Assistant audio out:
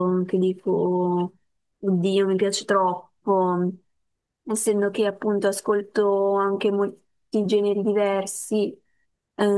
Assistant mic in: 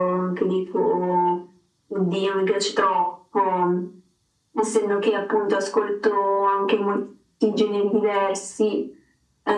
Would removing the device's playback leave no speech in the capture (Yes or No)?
Yes